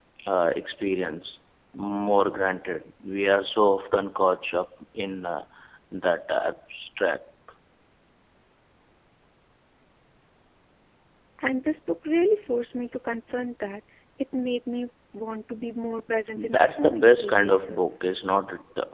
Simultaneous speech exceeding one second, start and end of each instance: 16.4-17.9

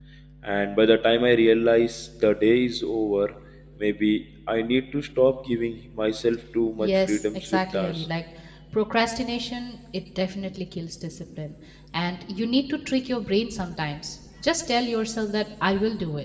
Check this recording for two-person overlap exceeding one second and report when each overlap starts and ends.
6.8-8.1

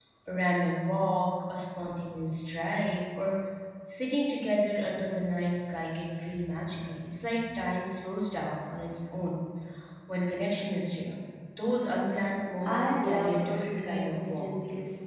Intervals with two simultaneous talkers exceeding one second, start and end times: 12.6-14.5

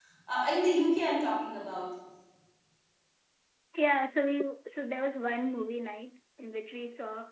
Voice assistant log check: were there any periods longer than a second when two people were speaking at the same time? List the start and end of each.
none

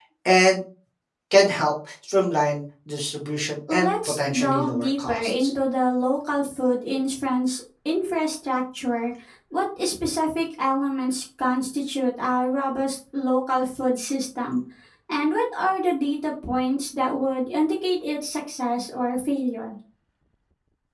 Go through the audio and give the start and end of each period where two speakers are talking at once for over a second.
3.7-5.5

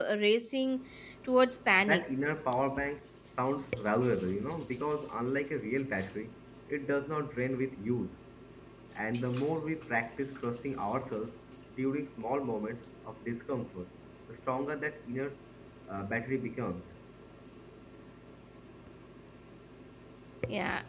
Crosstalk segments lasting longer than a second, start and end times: none

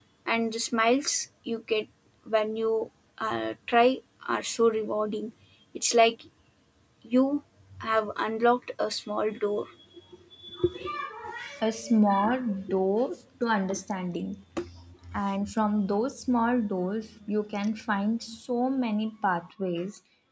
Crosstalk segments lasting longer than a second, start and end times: none

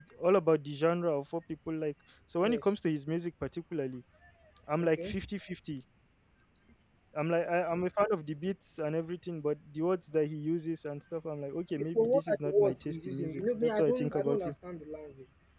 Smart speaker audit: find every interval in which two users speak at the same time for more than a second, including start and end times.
11.9-14.5

